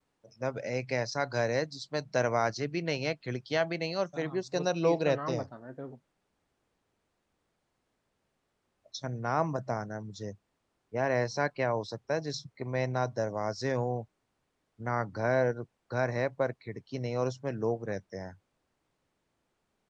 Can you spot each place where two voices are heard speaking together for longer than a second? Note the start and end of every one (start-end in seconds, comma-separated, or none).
4.2-5.5